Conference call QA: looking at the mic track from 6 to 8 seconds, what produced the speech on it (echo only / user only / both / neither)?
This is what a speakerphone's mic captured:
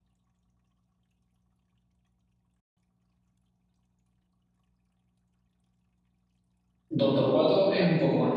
user only